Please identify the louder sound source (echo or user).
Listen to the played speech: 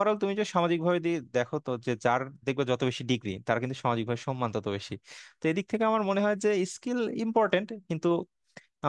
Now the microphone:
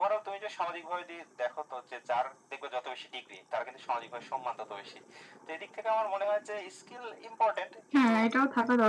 user